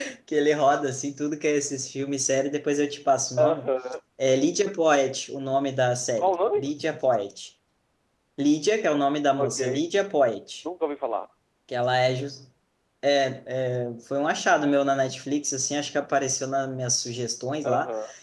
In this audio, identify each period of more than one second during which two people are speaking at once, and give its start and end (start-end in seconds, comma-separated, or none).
none